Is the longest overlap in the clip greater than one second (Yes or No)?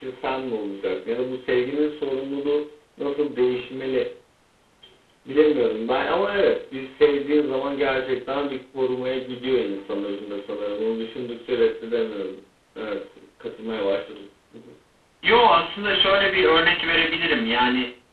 No